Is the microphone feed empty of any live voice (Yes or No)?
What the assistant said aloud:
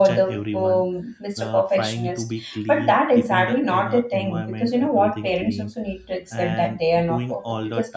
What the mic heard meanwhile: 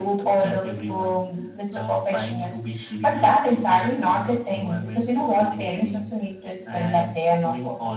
Yes